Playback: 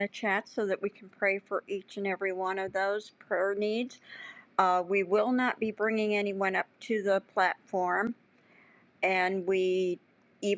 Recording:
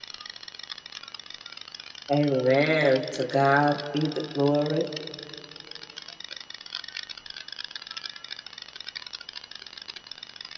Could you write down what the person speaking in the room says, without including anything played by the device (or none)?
Amen. To God be the glory.